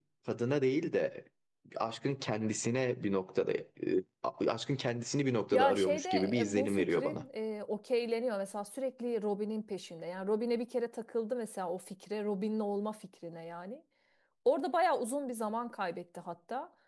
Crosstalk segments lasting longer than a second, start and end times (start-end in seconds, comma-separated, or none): 5.5-7.2